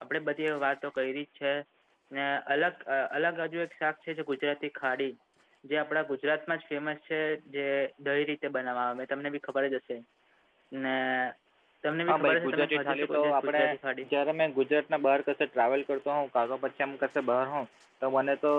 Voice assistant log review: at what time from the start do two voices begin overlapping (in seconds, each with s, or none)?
12.1 s